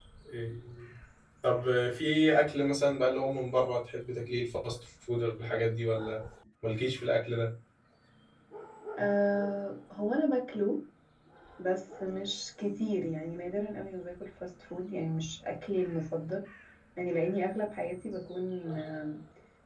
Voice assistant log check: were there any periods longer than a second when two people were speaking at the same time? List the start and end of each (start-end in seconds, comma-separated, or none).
none